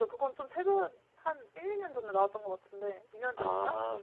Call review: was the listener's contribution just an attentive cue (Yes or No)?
No